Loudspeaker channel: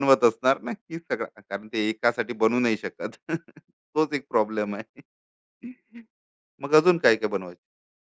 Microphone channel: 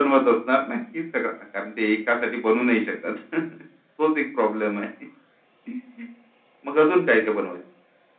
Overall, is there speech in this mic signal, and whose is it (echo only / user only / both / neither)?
echo only